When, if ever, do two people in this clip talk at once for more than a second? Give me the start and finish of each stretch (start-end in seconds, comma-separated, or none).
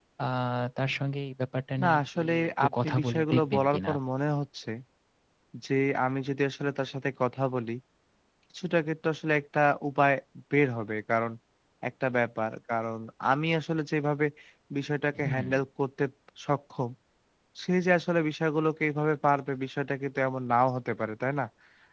1.8-3.9